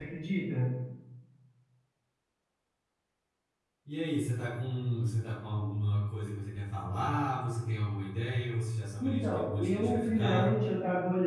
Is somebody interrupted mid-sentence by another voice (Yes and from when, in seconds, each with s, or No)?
Yes, from 9.0 s